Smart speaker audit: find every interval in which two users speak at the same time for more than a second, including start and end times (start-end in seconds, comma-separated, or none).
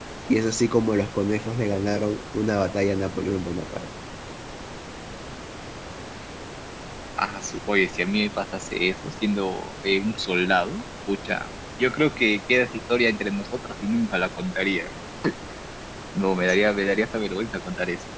none